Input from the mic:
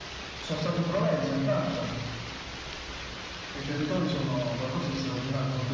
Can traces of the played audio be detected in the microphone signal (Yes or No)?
Yes